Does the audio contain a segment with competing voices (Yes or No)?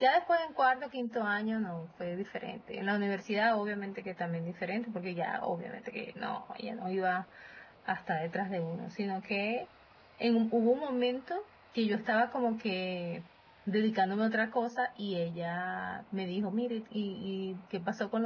No